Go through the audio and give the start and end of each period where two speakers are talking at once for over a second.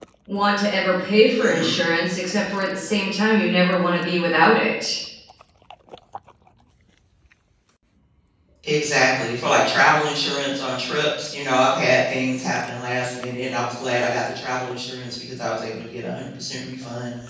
none

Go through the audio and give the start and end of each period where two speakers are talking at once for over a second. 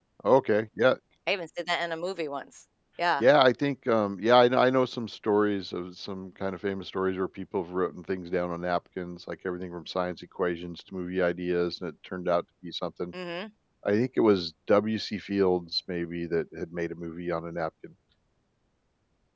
none

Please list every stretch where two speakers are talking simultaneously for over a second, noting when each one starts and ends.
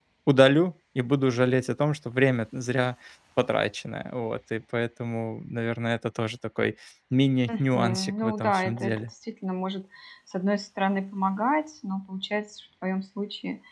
7.5-9.0

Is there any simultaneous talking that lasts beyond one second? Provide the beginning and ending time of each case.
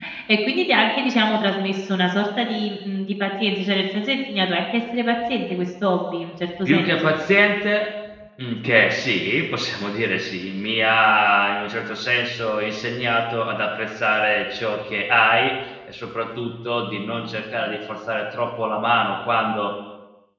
none

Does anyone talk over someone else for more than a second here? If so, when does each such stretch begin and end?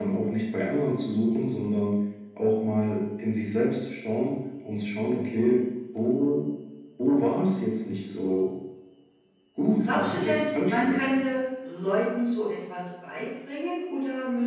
9.8-11.2

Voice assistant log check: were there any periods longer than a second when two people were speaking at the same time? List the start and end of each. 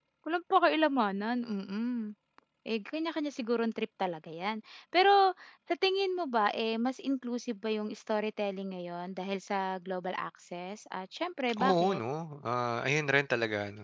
none

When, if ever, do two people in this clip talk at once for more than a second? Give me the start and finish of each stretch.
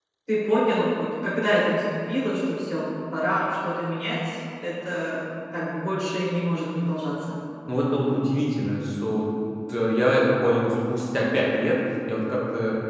none

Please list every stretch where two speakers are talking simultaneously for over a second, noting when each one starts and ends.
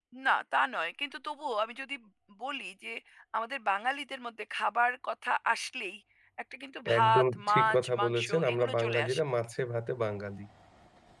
7.0-9.2

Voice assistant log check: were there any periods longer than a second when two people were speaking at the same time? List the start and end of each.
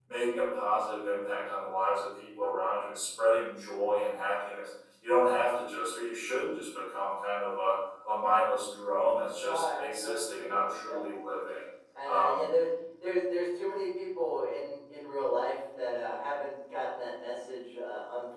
9.4-11.0

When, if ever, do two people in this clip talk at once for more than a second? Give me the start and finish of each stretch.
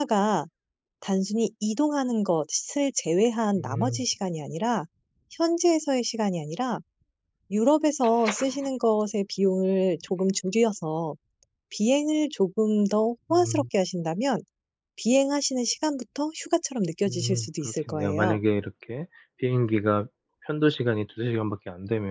17.1-18.4

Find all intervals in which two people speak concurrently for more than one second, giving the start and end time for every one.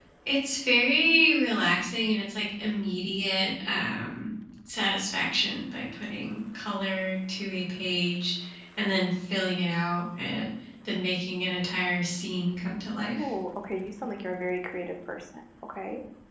none

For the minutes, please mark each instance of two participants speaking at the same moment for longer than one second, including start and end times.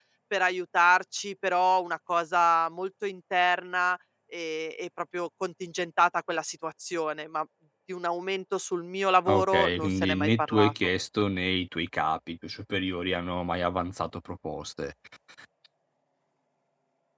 9.3-10.7

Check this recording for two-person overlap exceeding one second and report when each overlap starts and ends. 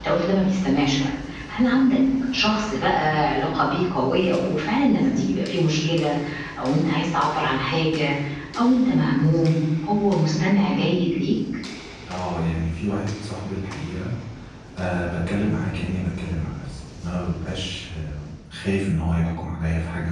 none

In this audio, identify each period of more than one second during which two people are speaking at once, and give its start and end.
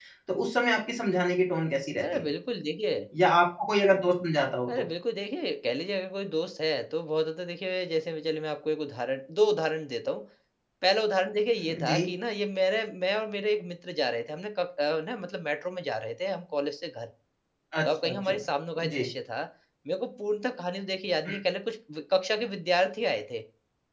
none

